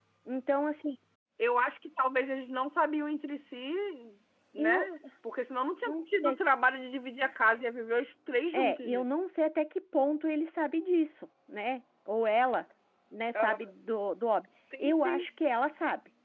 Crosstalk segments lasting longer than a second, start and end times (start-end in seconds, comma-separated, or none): none